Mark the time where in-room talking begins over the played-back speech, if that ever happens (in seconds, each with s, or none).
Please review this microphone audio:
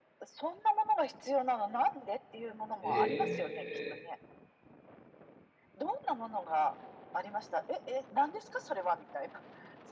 2.8 s